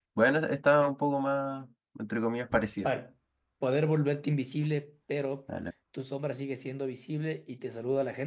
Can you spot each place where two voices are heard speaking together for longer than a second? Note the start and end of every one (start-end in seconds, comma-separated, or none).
none